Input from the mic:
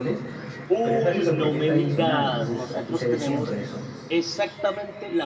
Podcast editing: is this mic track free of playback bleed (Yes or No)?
No